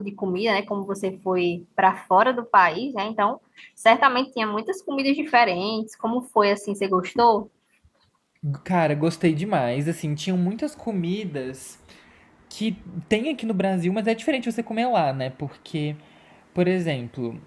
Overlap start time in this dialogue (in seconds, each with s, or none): none